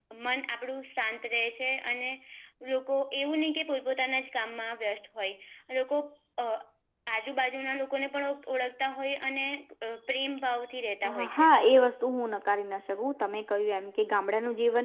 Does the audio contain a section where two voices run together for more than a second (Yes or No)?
No